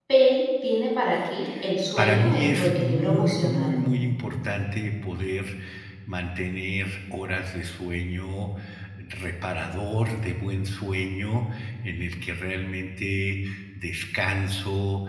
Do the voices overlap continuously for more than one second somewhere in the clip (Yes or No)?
Yes